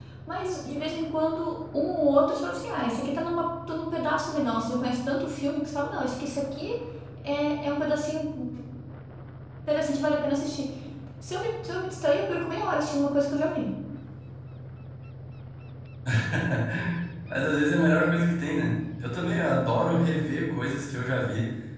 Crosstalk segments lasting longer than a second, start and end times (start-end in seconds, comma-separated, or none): none